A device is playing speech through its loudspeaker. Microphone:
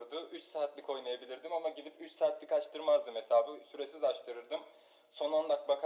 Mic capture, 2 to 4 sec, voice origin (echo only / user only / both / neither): echo only